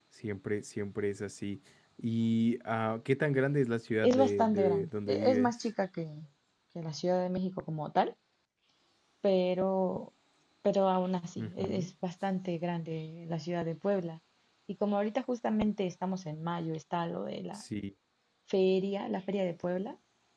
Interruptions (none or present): present